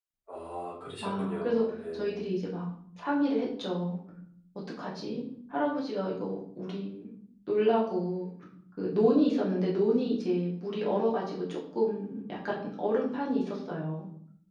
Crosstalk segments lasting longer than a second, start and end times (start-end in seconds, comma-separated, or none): 1.0-2.3